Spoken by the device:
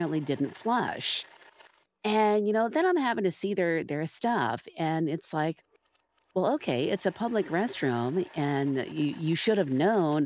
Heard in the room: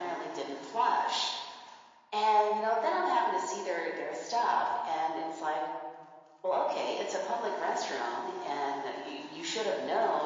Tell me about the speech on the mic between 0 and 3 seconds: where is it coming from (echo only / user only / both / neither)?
echo only